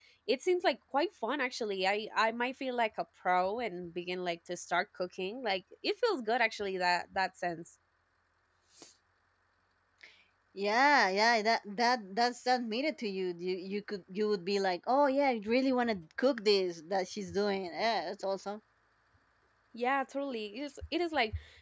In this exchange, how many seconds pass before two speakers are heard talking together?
none

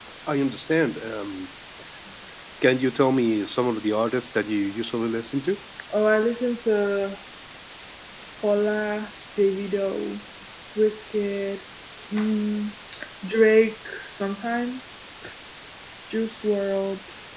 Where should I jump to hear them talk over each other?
none

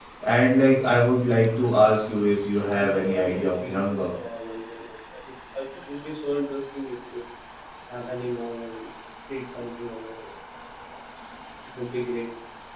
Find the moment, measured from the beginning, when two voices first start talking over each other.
2.6 s

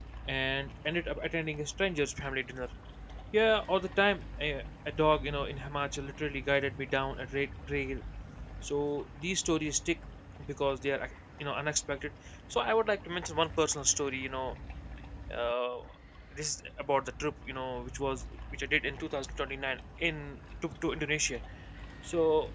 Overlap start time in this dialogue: none

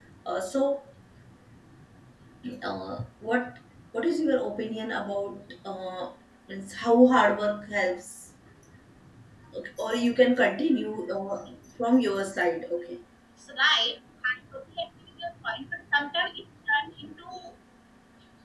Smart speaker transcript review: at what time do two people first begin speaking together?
none

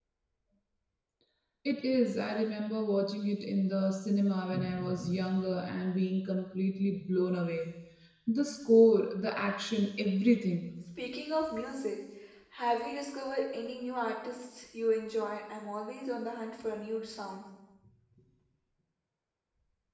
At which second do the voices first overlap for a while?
none

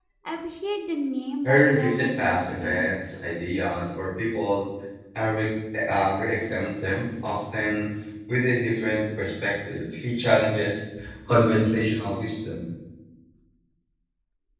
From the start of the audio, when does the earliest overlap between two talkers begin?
1.4 s

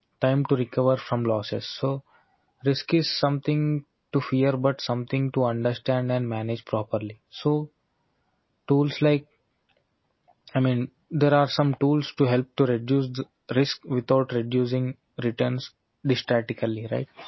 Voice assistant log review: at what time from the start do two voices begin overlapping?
none

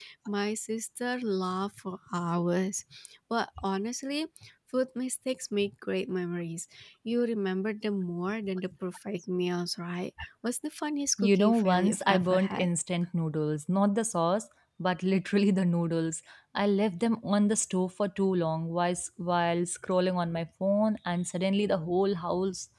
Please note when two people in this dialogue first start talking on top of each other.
11.2 s

